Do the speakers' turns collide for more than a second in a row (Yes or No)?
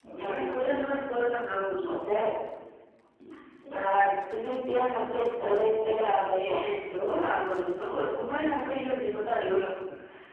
No